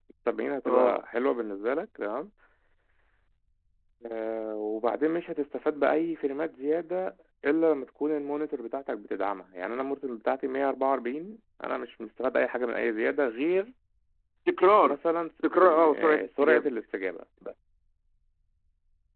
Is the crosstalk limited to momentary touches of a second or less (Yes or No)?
No